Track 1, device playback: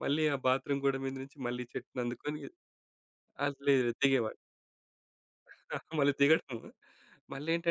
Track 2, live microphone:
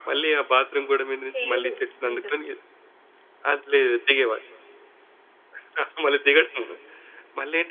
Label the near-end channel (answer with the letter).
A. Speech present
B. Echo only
A